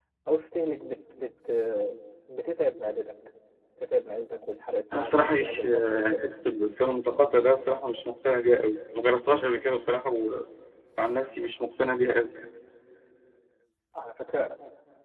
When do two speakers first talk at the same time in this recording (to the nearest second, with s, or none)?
5 s